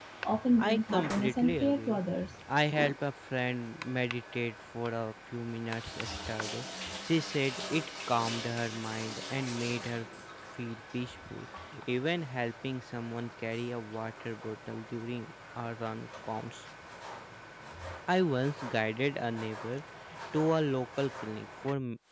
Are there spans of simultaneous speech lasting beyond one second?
Yes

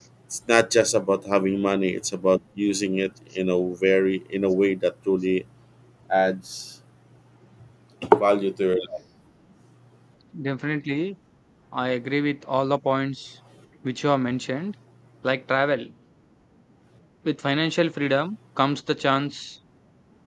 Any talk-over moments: No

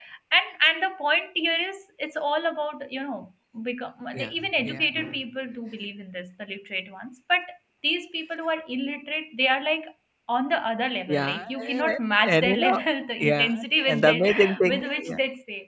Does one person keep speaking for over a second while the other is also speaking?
Yes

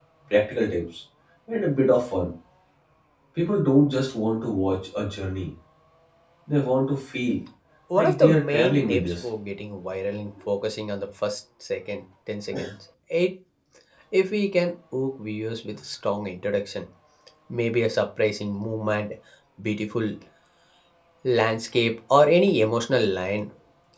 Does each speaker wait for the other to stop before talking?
No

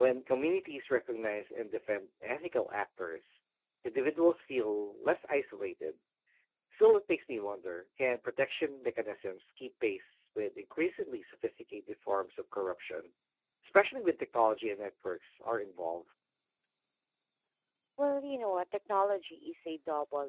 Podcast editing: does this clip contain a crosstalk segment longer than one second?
No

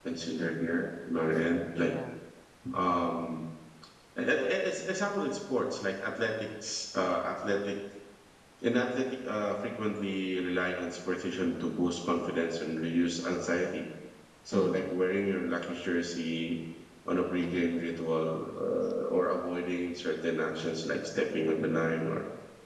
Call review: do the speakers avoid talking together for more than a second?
Yes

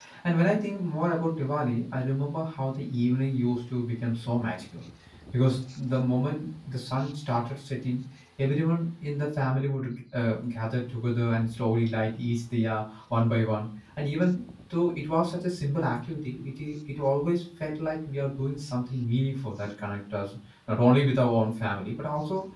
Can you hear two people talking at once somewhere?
No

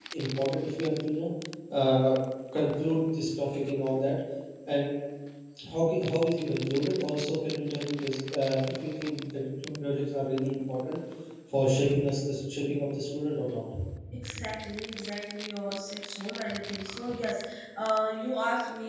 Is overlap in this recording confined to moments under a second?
Yes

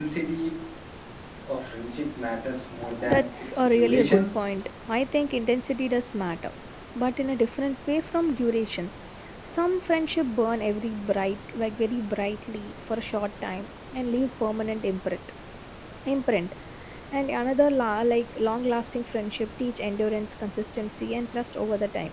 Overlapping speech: Yes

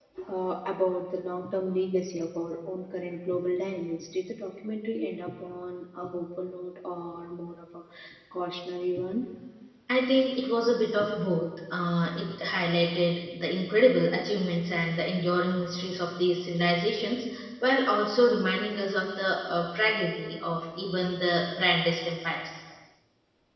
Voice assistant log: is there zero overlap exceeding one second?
Yes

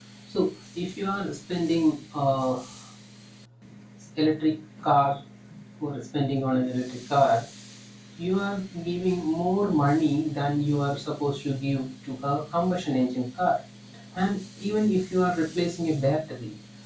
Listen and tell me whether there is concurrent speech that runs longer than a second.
No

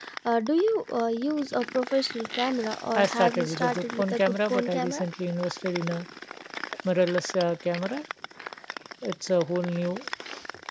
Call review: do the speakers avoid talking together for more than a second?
No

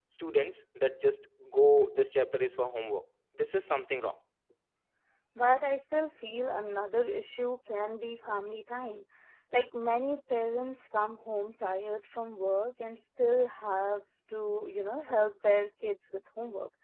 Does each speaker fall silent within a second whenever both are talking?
Yes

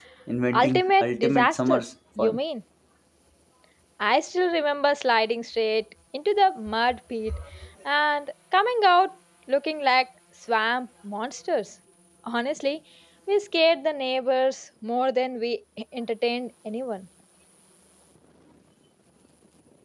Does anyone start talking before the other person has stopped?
Yes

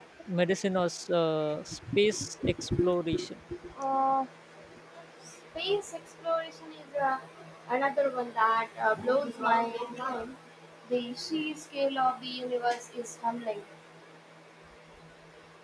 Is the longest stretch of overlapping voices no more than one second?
Yes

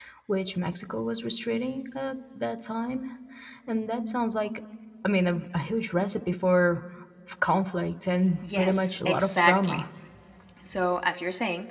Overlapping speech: Yes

